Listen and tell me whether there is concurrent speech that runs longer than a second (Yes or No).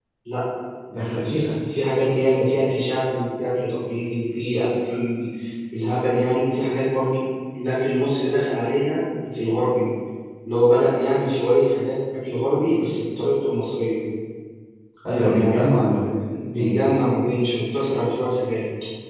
No